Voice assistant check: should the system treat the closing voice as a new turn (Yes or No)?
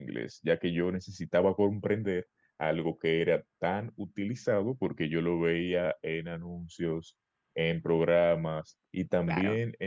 No